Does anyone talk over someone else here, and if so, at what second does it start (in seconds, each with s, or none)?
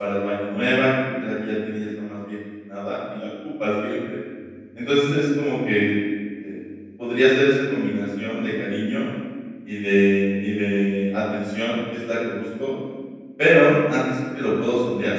none